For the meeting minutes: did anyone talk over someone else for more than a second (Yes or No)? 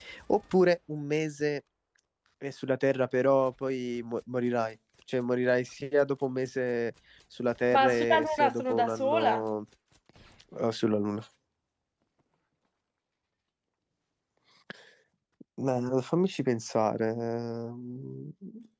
Yes